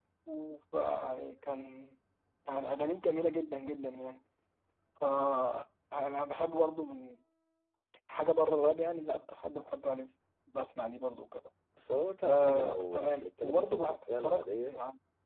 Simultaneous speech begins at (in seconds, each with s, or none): 12.2 s